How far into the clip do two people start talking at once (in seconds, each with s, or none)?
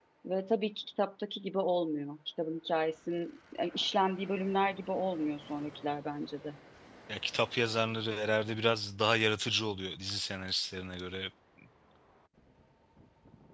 none